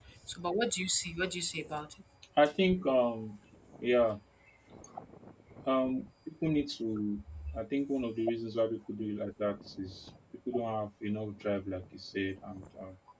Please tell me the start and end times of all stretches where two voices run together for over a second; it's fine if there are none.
none

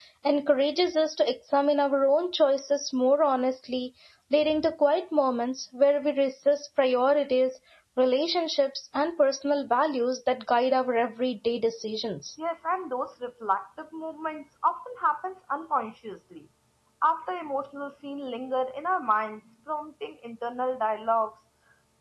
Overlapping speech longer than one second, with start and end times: none

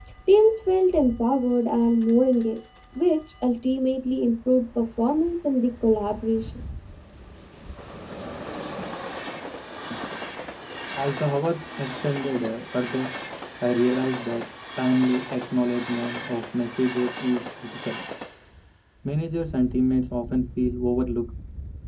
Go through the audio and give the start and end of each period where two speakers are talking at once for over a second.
none

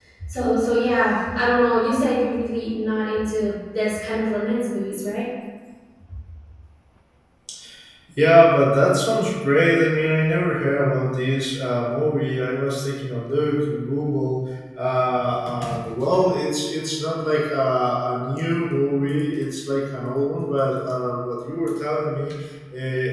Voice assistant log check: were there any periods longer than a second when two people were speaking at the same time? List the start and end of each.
none

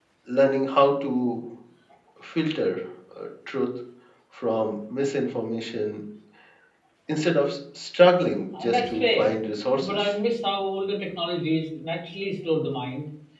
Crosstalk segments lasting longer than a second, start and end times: 8.6-10.2

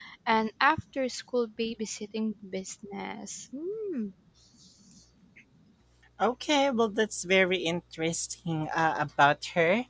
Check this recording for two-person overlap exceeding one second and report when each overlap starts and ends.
none

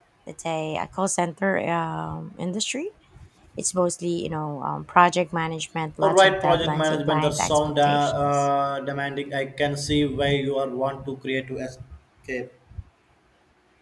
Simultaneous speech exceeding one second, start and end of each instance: 6.0-8.5

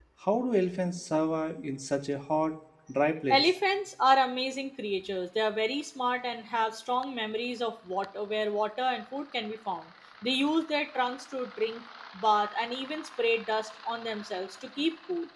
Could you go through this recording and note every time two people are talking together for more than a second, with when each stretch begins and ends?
none

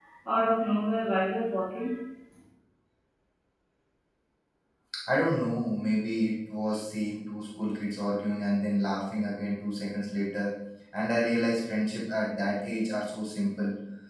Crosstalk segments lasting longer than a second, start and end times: none

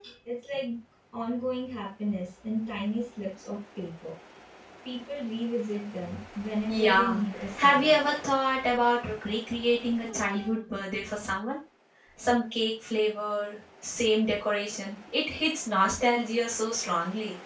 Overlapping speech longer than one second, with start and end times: 6.7-7.9

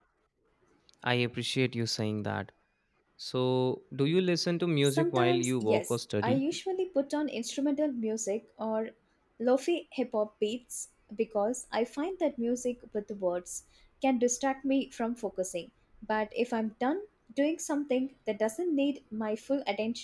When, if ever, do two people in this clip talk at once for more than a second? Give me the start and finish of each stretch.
4.8-6.4

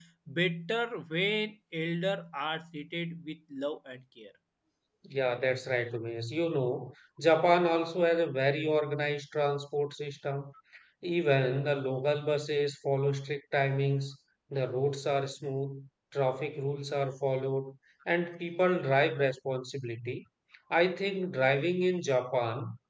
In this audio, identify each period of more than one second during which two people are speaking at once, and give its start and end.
none

